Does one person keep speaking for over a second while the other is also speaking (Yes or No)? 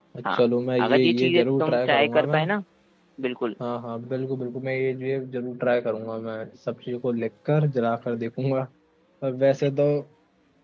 Yes